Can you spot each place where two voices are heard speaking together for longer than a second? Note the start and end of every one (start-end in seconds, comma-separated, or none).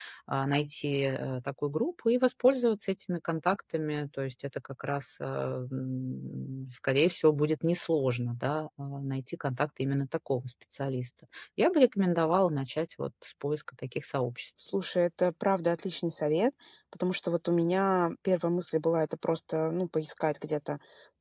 none